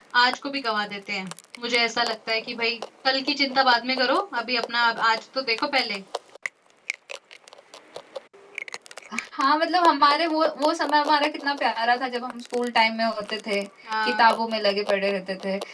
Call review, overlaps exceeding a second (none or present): none